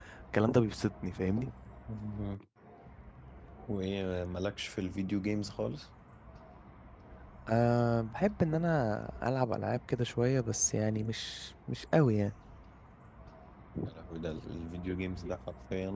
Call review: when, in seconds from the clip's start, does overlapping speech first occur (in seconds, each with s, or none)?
none